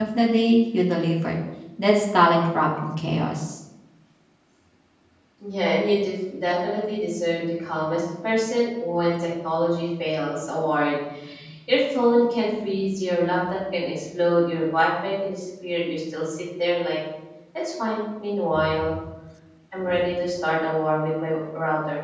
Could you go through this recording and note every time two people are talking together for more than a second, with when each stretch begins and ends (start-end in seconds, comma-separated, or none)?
none